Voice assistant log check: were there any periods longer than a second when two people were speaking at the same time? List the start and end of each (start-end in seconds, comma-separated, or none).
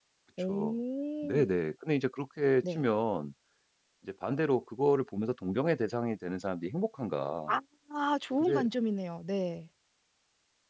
none